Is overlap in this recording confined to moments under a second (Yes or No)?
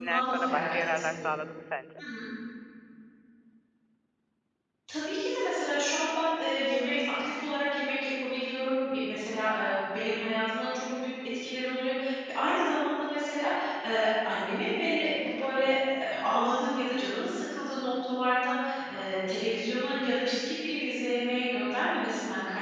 No